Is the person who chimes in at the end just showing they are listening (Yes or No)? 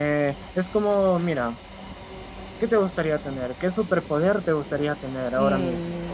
No